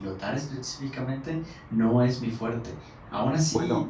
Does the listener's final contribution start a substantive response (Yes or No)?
No